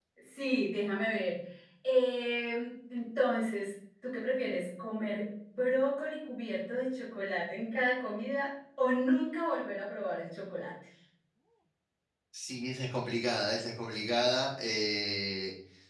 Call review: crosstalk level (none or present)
none